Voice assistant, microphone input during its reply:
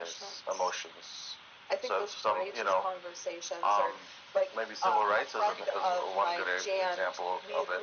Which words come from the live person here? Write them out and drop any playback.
none

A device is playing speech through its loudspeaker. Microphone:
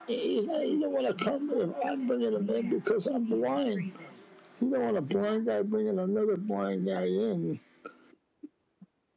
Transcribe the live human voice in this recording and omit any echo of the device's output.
none

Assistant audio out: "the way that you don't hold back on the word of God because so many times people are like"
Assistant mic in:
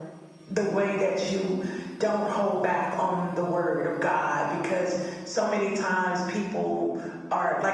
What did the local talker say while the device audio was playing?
none

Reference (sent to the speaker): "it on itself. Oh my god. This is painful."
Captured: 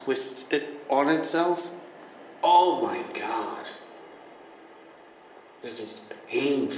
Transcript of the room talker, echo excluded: none

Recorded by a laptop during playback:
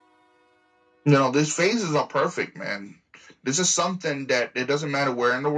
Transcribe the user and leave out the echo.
none

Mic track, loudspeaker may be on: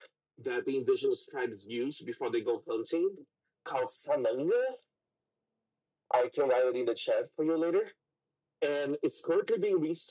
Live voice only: none

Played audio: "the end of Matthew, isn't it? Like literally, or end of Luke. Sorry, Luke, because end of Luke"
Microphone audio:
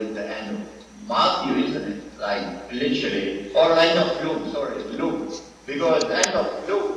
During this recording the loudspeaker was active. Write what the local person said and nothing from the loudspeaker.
none

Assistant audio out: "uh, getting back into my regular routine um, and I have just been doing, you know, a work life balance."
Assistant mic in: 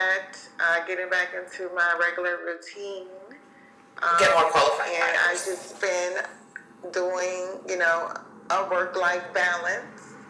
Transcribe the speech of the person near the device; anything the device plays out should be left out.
get more qualified buyers?

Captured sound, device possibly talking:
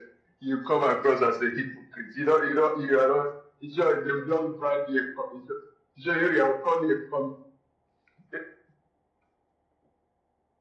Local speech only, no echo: none

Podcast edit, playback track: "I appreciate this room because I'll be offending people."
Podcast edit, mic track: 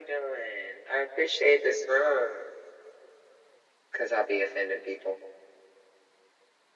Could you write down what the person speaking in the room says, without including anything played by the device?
none

